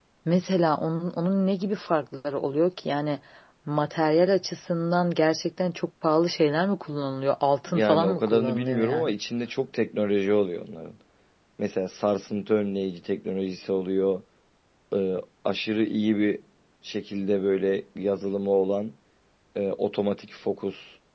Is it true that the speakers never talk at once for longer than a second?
No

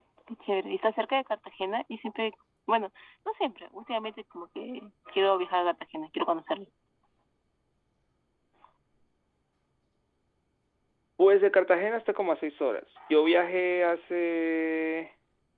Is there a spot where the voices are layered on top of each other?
No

